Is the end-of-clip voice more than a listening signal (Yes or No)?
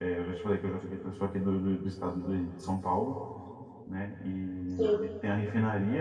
No